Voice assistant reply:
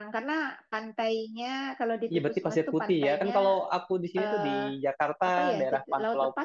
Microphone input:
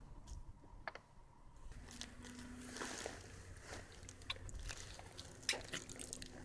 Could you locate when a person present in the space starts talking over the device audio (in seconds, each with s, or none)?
none